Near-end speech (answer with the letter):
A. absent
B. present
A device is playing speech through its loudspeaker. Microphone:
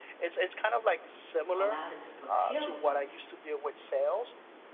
B